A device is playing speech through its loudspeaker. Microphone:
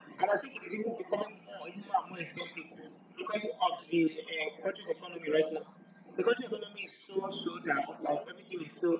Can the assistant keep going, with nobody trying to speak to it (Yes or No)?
Yes